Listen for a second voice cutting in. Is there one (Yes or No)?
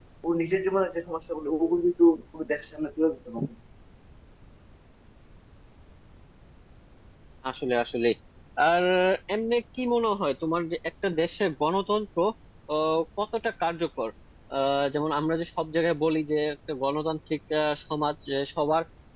No